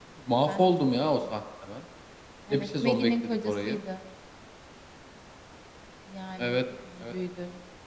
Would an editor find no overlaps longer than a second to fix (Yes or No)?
No